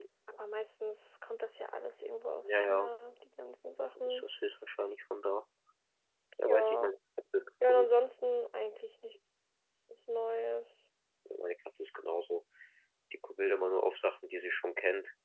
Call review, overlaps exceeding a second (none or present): none